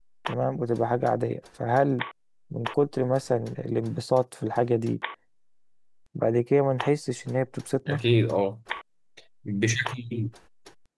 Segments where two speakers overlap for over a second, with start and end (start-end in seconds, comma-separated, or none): none